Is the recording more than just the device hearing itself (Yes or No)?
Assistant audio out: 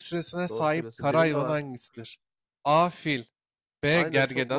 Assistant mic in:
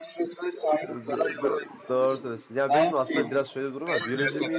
Yes